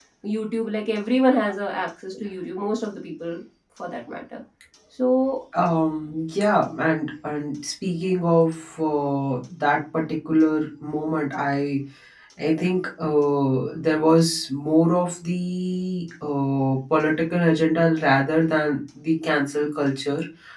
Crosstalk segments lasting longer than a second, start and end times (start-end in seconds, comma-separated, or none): none